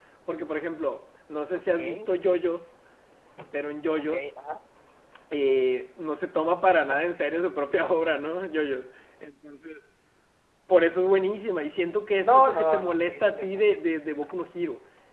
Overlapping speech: Yes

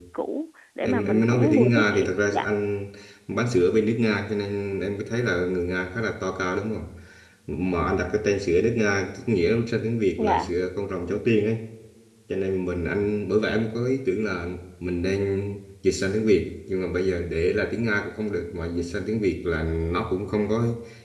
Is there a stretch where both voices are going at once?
Yes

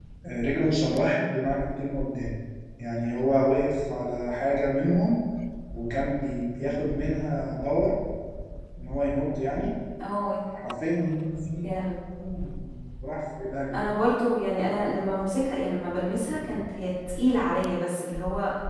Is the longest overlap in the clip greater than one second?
No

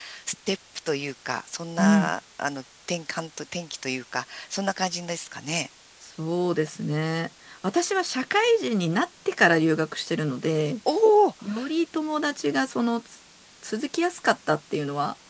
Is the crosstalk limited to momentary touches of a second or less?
Yes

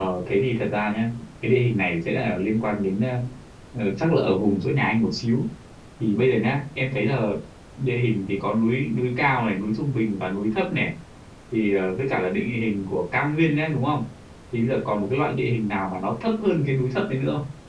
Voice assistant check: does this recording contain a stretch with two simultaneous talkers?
No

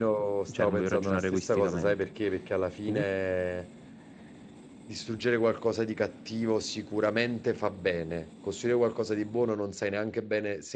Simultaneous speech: Yes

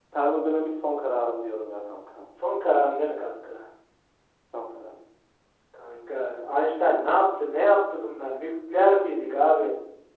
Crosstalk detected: No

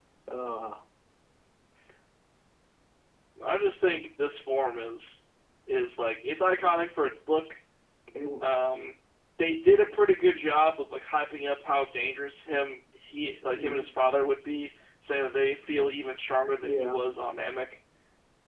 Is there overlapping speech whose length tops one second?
No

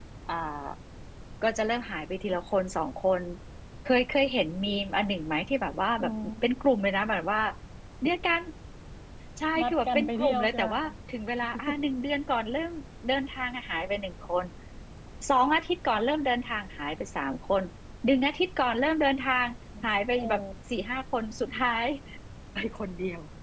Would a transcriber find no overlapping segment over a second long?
No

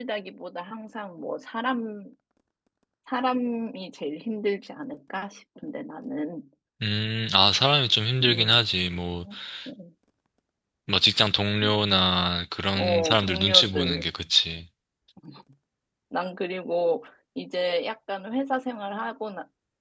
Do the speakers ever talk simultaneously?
Yes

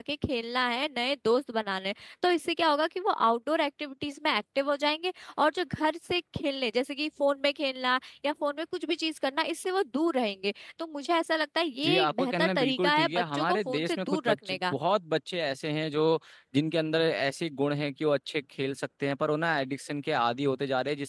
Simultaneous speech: Yes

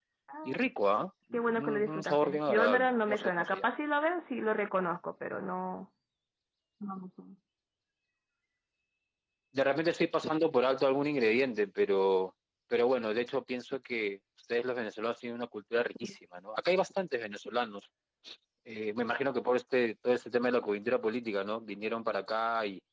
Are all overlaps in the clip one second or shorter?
No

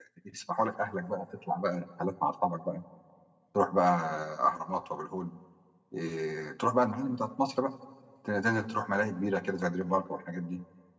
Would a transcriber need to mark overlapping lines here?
No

